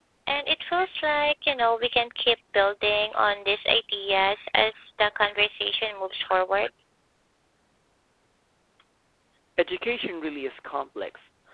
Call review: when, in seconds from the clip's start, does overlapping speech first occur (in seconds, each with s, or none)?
none